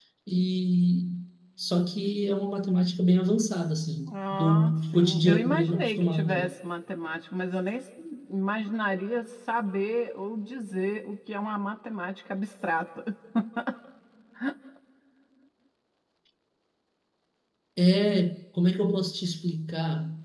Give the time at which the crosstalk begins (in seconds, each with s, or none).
4.1 s